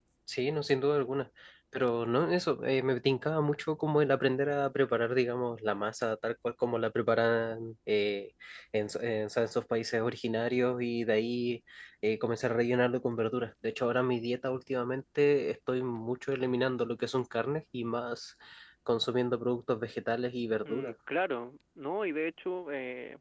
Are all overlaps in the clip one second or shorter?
Yes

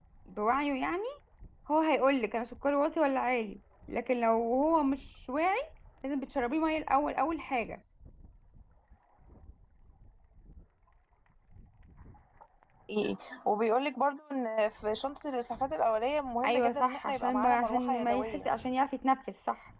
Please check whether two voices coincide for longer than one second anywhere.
Yes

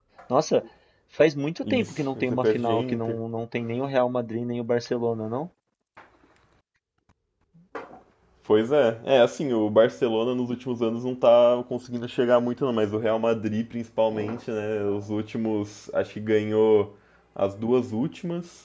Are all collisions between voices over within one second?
No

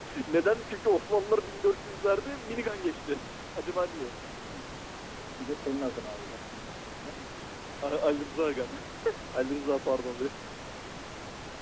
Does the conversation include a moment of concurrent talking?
No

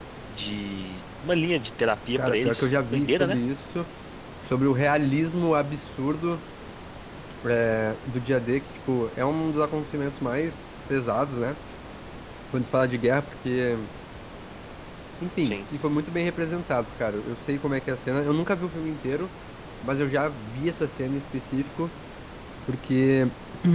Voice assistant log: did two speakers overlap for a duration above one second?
Yes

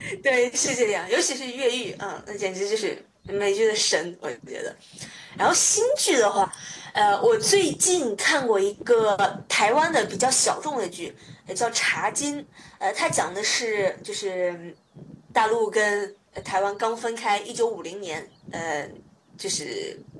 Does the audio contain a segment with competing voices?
No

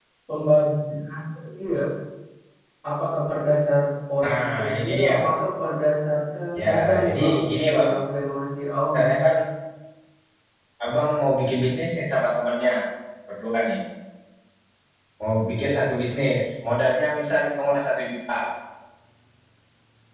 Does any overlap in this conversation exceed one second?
Yes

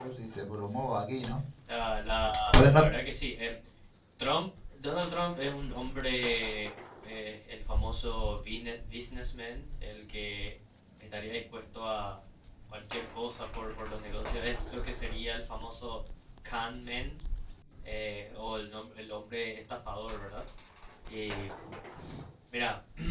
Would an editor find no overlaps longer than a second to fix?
Yes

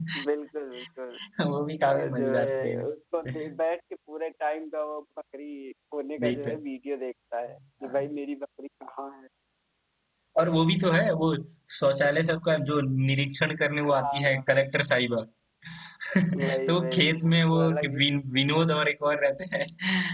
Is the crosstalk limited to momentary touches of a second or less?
No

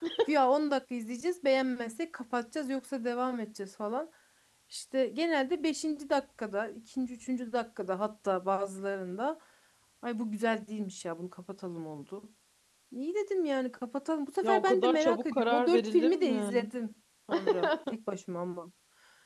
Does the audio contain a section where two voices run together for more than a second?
Yes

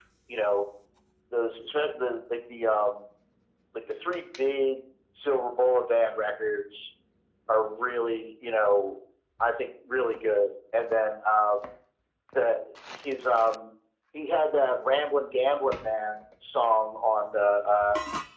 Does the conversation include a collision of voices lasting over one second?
No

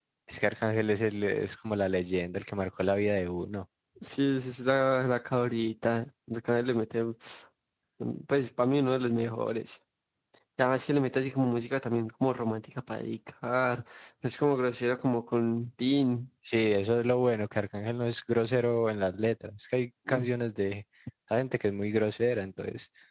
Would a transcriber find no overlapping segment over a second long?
Yes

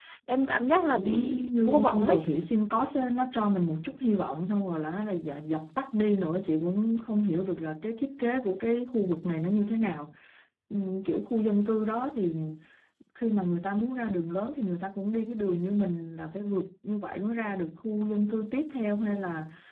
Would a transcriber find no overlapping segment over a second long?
No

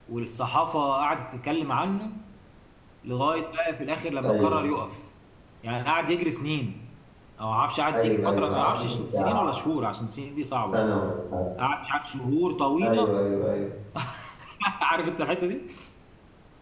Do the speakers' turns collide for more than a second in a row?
Yes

